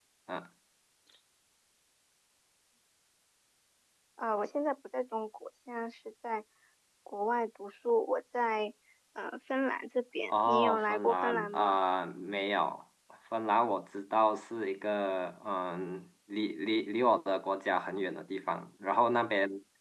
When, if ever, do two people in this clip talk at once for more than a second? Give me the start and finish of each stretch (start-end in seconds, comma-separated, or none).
10.3-11.8